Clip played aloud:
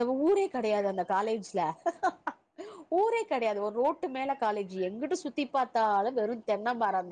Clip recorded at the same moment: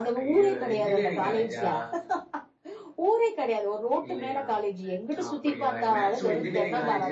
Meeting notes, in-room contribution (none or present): present